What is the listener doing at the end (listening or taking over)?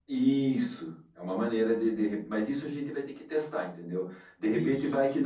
listening